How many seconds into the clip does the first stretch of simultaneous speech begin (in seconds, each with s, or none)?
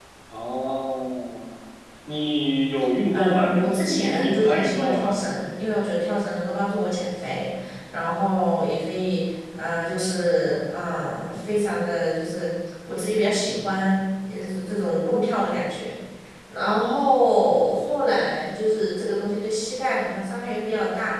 3.1 s